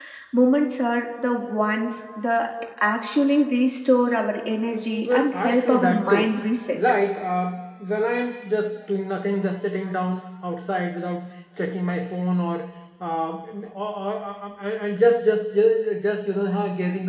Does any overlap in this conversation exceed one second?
Yes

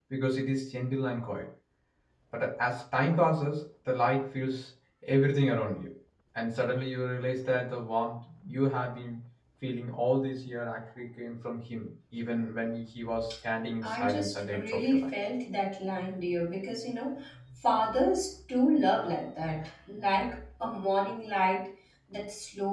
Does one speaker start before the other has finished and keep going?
Yes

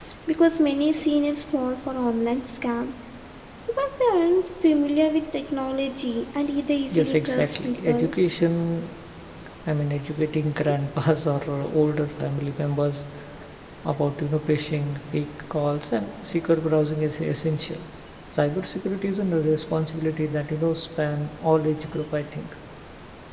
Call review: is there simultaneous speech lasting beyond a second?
Yes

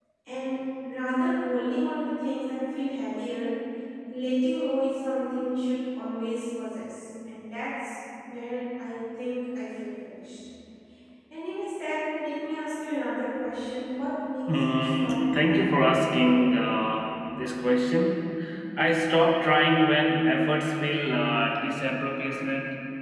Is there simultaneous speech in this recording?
Yes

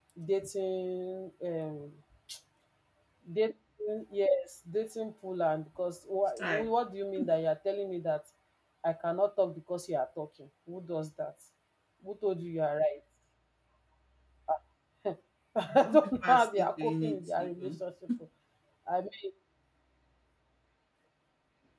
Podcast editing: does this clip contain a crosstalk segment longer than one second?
Yes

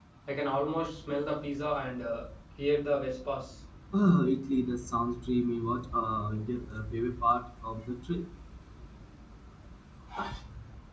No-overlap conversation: Yes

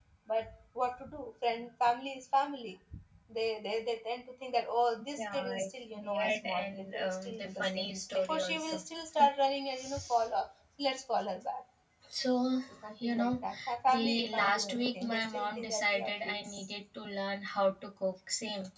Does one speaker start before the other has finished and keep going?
Yes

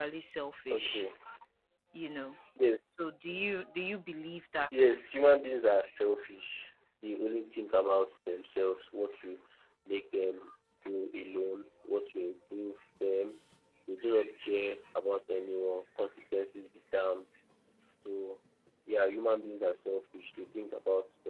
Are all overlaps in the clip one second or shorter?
Yes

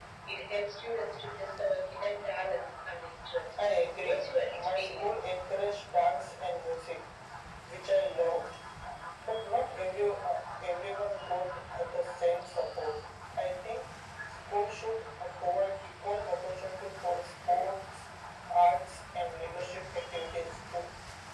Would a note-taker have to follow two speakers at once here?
Yes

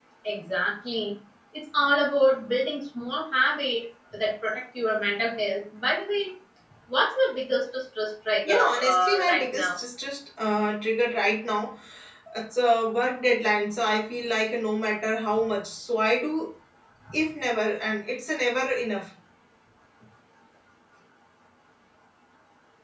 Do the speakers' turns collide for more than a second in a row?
Yes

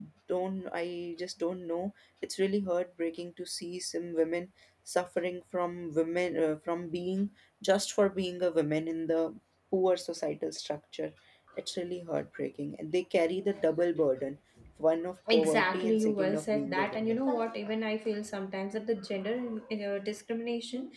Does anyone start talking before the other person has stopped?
Yes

